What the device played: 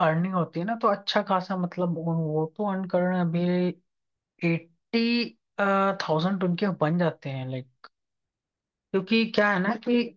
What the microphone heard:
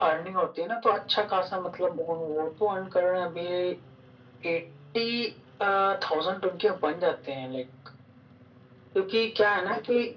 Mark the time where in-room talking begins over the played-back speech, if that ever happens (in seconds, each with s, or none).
none